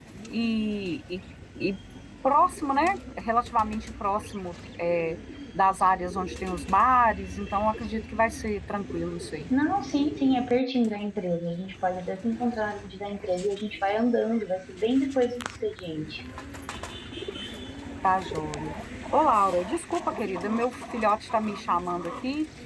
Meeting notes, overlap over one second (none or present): none